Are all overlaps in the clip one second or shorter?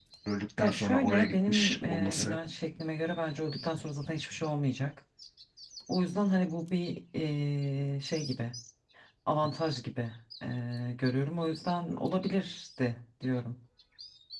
No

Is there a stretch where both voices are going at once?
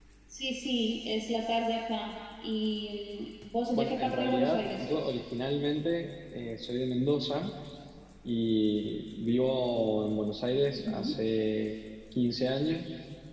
Yes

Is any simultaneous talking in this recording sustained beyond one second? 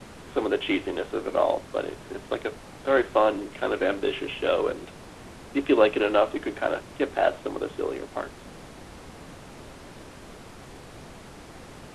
No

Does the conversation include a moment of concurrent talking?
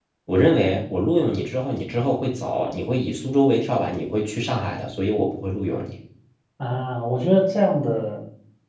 No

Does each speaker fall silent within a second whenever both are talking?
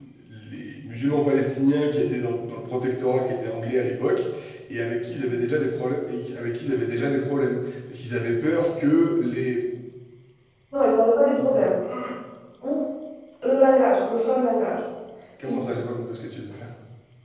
Yes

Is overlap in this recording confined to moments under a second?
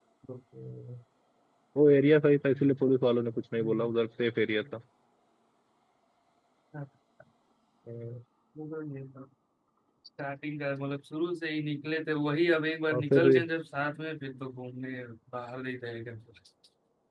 Yes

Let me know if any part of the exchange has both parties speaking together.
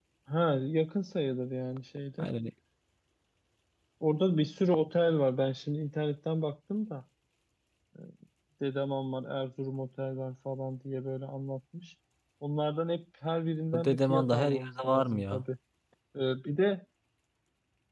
Yes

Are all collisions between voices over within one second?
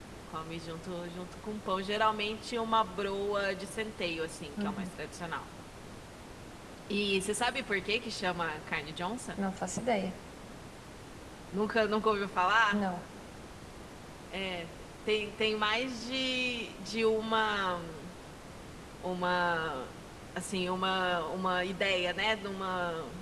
Yes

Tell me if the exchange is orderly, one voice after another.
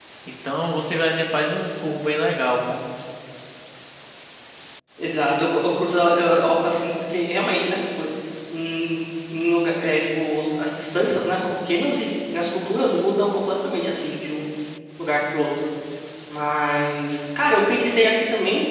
Yes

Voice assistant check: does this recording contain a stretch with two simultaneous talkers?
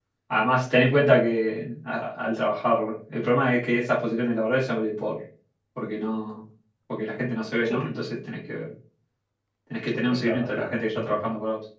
Yes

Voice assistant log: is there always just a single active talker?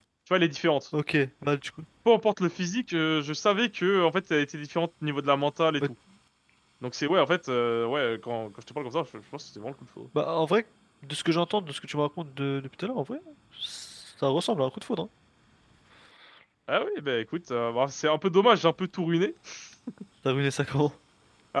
Yes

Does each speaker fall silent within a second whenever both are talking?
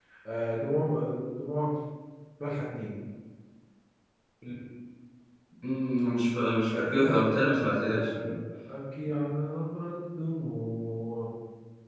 No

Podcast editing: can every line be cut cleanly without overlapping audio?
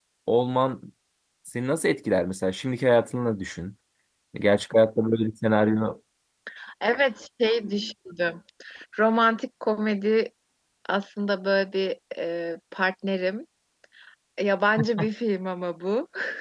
Yes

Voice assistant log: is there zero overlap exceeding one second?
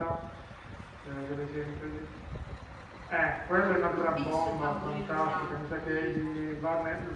No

